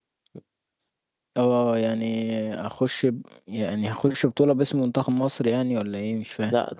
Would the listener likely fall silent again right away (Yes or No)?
No